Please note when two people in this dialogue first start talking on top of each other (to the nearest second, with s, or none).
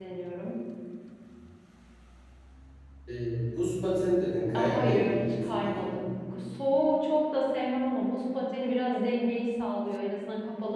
5 s